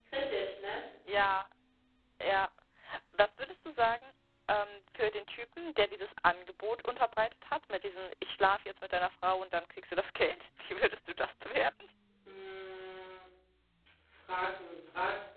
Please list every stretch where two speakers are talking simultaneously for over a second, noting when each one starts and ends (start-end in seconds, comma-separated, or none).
none